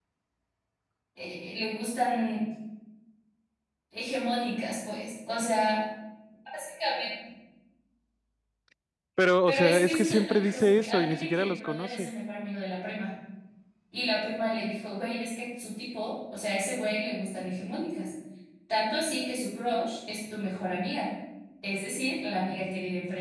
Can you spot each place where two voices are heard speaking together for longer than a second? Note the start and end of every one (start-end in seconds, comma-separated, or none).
9.5-12.1